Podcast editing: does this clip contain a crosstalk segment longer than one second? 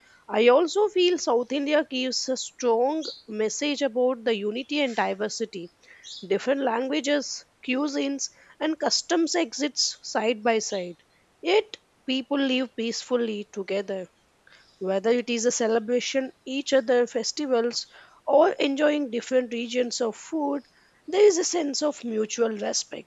No

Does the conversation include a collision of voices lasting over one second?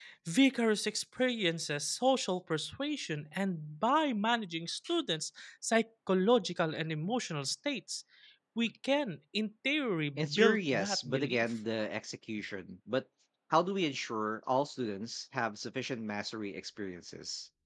Yes, from 10.2 s

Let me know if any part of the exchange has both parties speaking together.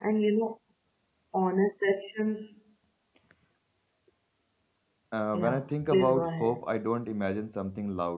Yes, from 5.3 s

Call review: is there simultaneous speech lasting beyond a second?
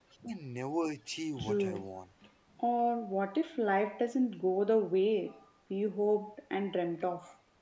No

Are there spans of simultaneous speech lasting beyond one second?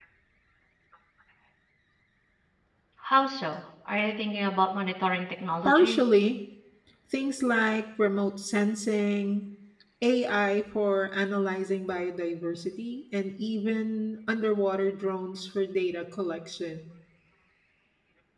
No

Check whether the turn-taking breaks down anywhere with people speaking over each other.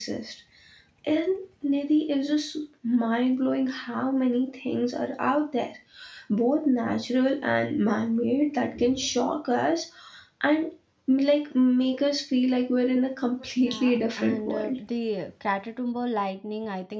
Yes, from 13.6 s

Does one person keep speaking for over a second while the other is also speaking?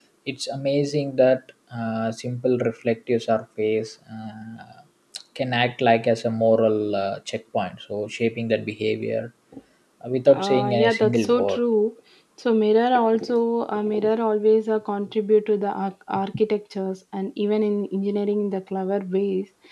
Yes, from 10.3 s

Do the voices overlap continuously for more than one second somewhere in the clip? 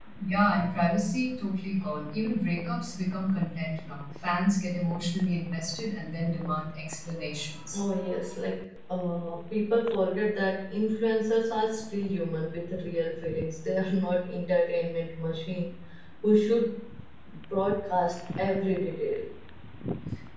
No

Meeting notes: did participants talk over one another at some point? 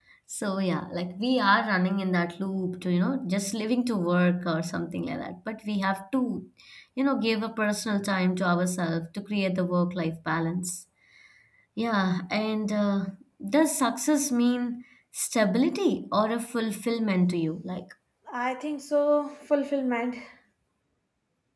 No

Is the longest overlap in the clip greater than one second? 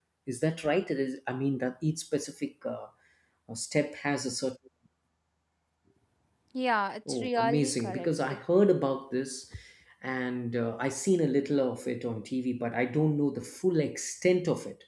Yes, from 7.1 s

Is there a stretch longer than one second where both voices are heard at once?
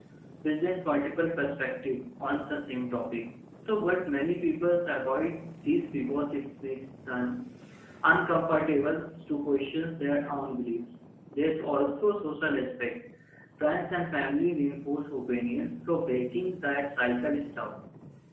No

